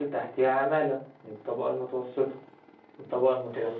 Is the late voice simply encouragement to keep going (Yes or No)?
Yes